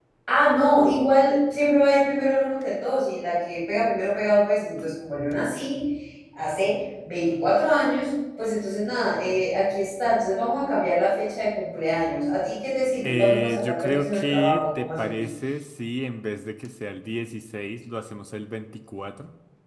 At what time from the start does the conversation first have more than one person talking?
13.0 s

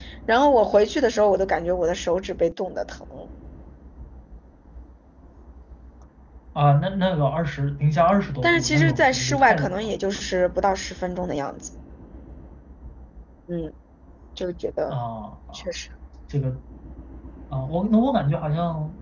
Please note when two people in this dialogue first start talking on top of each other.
8.4 s

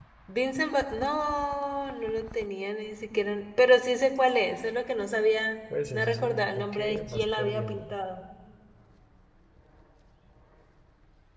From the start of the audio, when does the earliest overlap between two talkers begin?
5.9 s

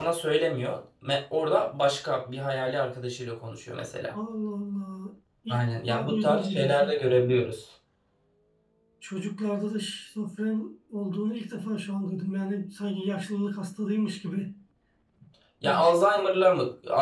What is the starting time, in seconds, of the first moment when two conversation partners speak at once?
5.5 s

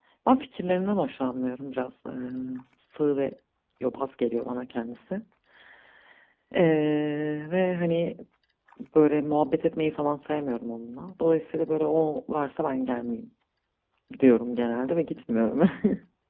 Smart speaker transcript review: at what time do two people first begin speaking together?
none

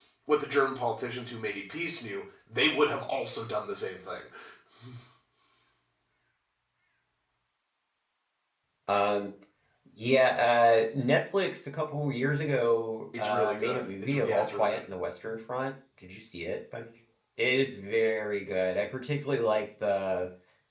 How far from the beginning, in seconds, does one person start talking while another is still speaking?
13.1 s

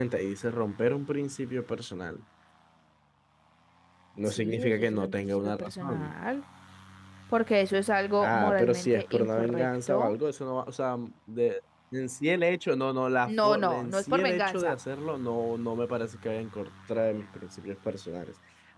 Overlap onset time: 4.2 s

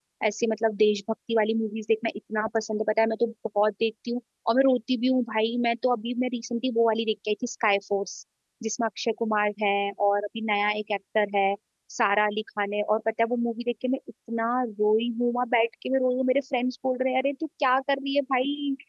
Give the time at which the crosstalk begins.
none

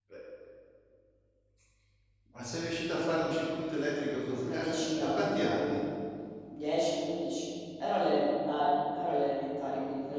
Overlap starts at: 4.4 s

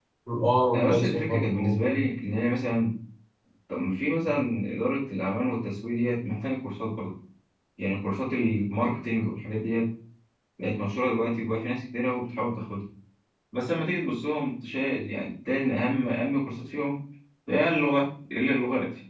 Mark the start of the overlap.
0.7 s

